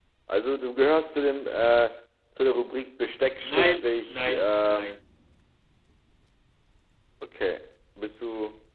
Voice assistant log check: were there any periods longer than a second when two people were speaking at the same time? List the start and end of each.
3.4-4.8

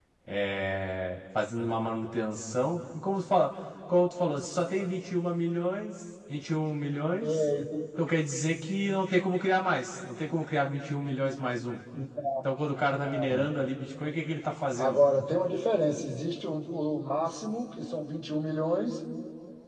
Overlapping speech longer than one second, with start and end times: none

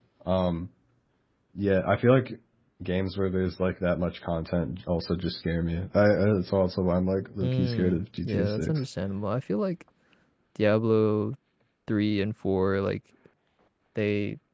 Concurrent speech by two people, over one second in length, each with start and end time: 7.4-8.8

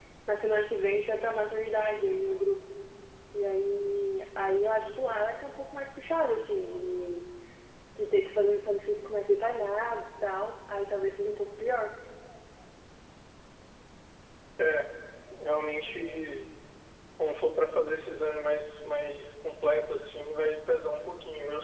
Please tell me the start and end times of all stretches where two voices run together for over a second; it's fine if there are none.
none

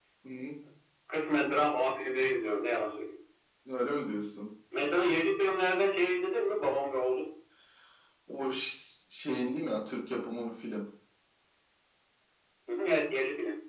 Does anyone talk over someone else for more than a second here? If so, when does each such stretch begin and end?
none

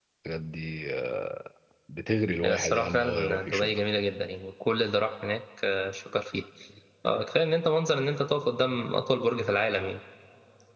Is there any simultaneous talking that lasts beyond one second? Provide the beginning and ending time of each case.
2.4-3.8

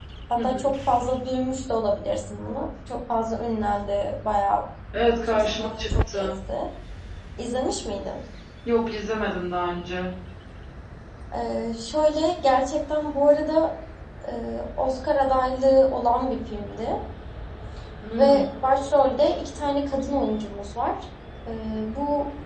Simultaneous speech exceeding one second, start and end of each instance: 4.9-6.3

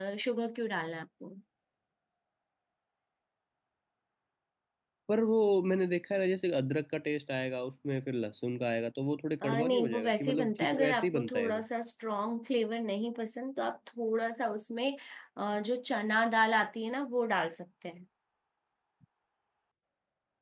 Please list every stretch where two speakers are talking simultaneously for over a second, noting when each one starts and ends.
9.4-11.6

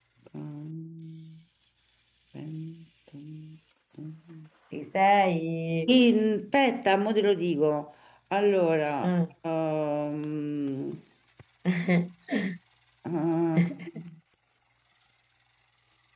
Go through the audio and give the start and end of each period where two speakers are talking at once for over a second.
none

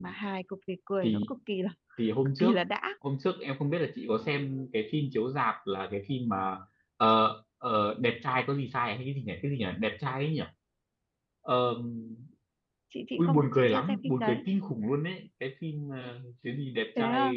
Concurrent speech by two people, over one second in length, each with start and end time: 13.2-14.4

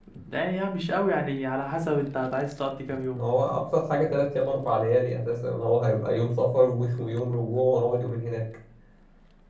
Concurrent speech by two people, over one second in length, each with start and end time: none

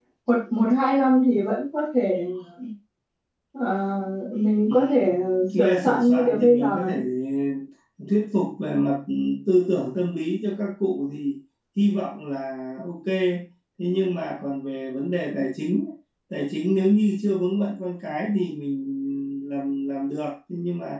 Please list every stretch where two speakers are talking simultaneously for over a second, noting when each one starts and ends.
5.6-6.9

